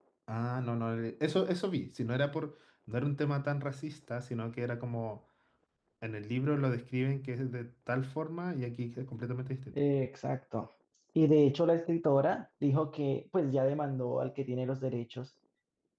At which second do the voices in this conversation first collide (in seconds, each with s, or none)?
none